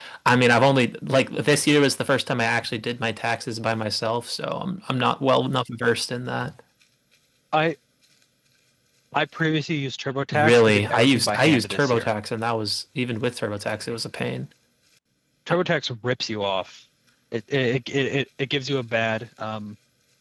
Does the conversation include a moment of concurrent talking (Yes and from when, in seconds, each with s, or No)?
Yes, from 10.3 s